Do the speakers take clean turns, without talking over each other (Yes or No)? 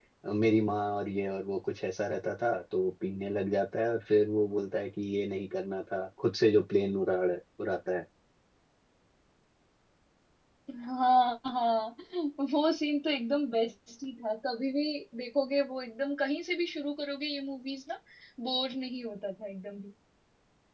Yes